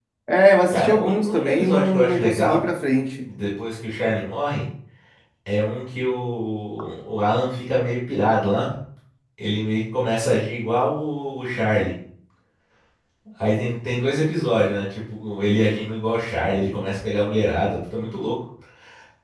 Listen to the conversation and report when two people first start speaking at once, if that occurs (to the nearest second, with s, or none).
1 s